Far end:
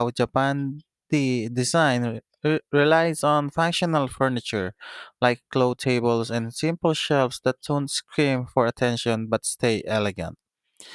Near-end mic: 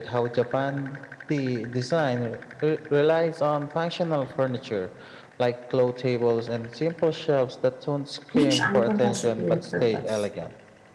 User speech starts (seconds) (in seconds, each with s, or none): 8.4 s